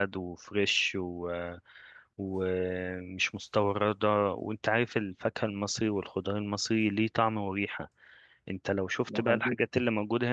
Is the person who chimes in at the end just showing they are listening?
Yes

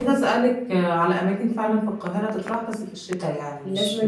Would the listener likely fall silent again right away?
No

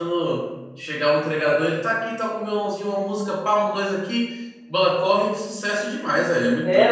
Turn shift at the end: Yes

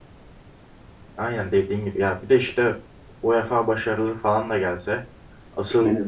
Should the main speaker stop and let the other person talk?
No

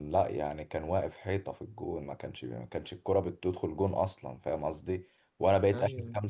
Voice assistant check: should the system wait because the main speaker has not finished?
Yes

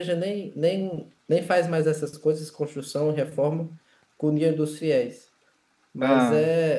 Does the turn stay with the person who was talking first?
Yes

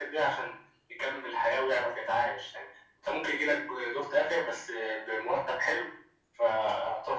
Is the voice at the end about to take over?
No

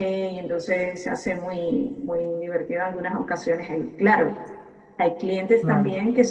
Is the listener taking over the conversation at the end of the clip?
No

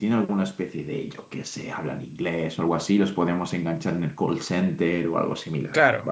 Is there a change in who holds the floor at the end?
Yes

